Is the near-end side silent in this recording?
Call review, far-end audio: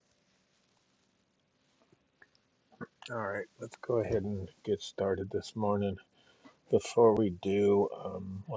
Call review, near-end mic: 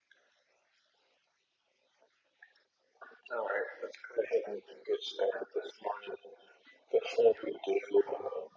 Yes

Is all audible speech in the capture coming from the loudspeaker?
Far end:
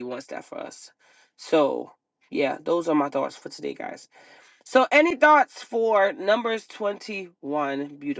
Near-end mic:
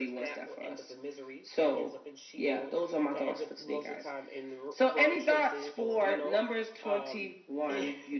No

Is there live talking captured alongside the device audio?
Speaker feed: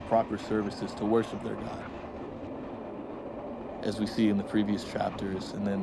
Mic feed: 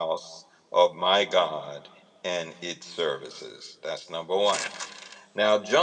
Yes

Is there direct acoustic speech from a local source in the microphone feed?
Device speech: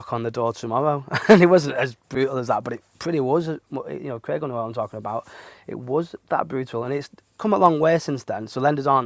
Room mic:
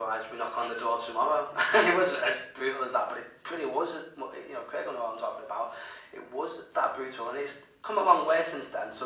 No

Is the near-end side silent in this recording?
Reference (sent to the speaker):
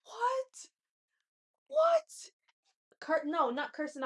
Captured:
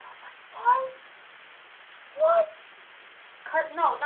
Yes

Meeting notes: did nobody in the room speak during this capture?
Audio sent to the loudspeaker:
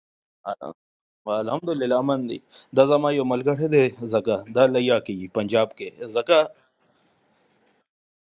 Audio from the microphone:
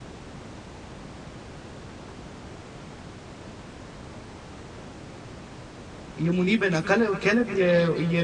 No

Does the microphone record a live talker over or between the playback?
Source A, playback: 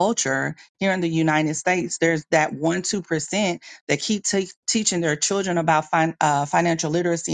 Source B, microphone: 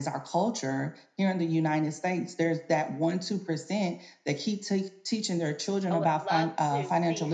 Yes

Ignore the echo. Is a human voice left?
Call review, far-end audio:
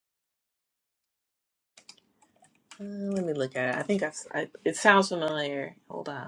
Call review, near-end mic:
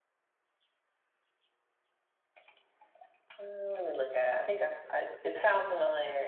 No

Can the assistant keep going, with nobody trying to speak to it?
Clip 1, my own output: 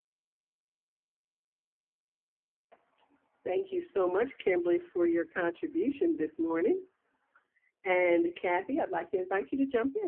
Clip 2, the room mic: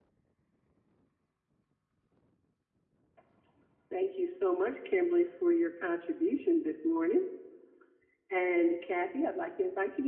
Yes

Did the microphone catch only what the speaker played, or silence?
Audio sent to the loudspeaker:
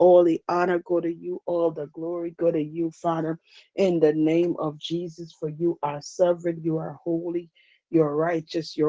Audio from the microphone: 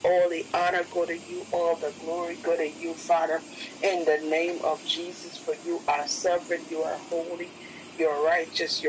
Yes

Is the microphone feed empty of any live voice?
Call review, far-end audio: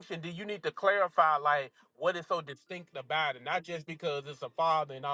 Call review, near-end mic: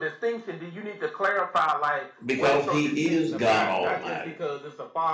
No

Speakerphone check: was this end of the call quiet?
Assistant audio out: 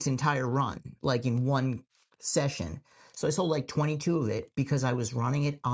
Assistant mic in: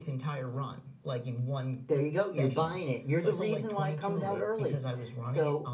No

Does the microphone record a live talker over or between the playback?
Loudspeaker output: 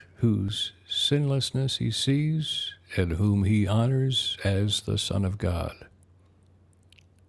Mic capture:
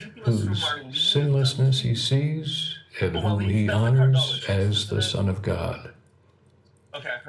Yes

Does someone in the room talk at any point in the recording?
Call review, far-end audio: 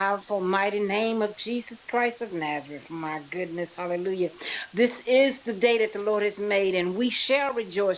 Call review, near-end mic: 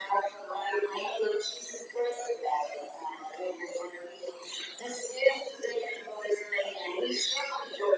No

